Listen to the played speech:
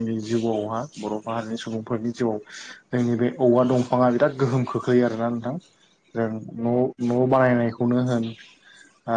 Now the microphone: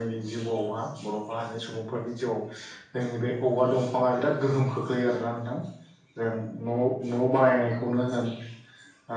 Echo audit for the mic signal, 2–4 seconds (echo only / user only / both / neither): echo only